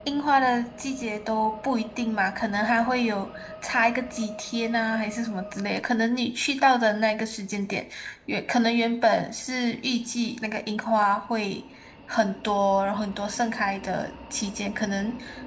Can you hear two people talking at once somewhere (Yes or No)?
No